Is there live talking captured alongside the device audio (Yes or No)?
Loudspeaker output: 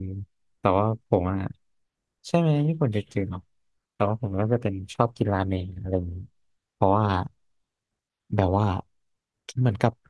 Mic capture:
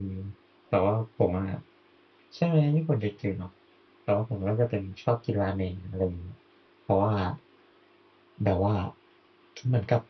No